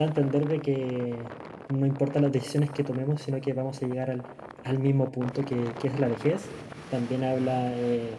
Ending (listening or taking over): listening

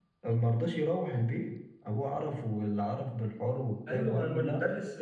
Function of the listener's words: taking over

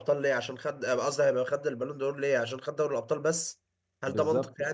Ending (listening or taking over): taking over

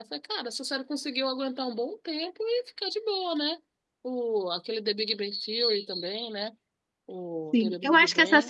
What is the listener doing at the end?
taking over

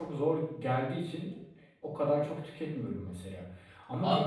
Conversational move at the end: taking over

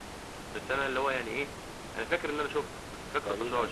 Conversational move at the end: taking over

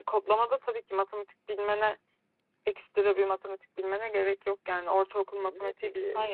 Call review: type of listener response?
taking over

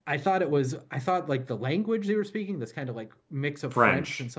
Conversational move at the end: listening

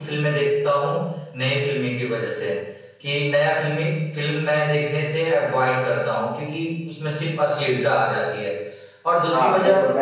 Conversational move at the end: taking over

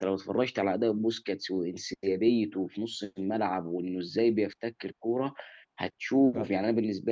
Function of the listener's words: listening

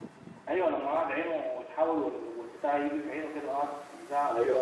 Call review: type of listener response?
taking over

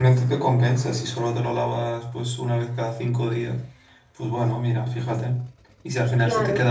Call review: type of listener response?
listening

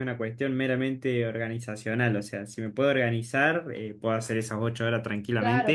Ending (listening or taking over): taking over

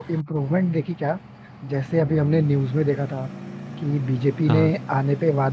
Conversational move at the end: listening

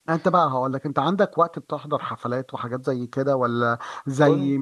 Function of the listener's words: listening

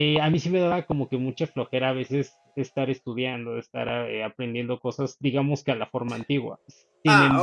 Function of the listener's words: listening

